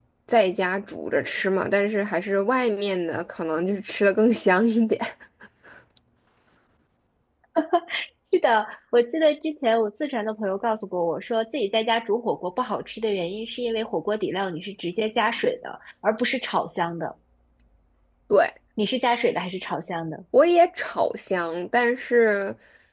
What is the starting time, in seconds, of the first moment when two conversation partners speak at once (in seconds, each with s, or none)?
none